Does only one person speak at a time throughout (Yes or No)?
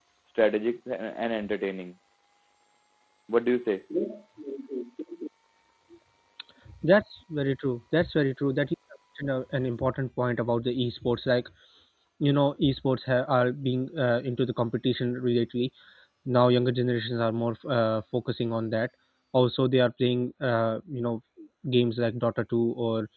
Yes